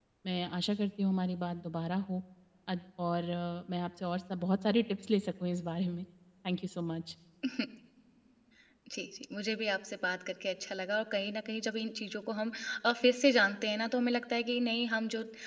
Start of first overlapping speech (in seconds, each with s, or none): none